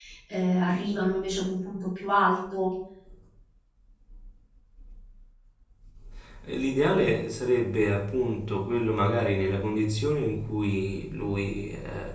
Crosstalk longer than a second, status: none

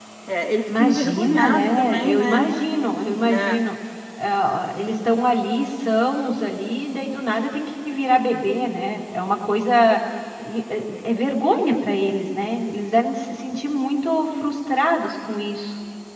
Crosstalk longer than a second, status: present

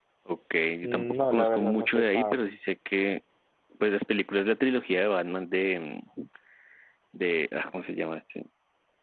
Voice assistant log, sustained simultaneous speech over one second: present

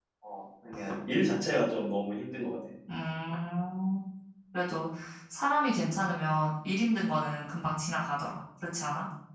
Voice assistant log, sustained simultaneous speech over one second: none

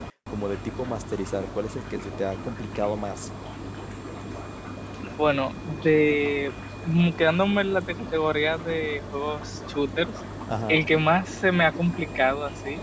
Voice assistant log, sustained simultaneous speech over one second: none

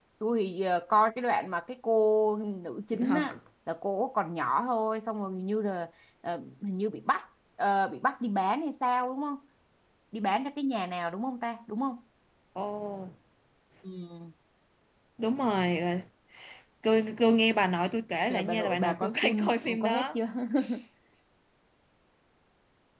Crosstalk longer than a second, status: present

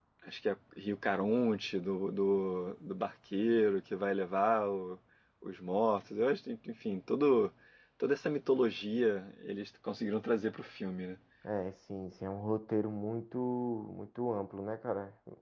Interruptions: none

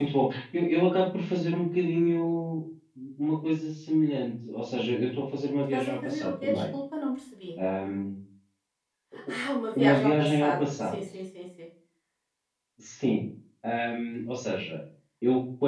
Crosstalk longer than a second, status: present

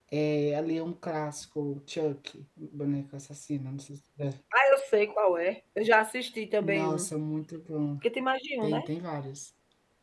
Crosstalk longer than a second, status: none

